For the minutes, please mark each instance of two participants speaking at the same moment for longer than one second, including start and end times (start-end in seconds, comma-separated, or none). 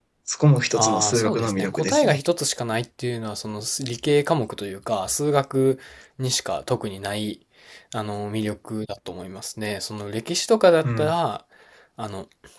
0.7-2.2